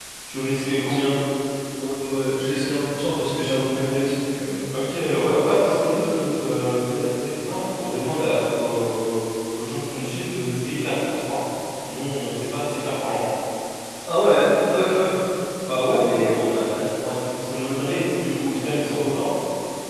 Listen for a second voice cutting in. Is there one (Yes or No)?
No